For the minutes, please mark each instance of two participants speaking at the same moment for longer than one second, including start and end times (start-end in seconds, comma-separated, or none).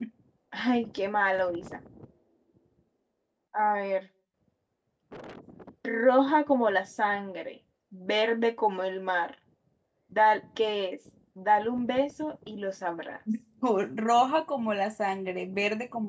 none